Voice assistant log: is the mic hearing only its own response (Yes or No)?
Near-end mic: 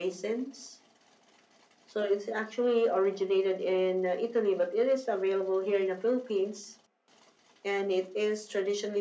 Yes